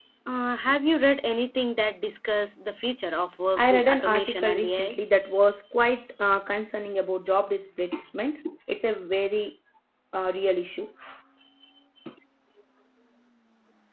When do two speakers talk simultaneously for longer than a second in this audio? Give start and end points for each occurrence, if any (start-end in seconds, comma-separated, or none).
3.6-5.0